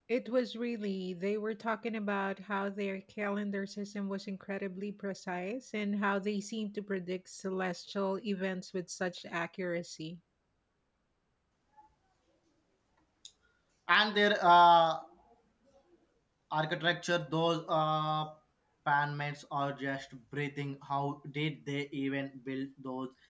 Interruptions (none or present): none